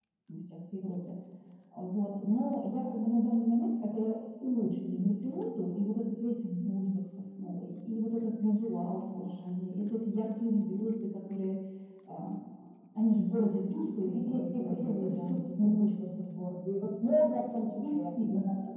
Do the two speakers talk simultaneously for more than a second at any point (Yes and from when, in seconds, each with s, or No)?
Yes, from 13.8 s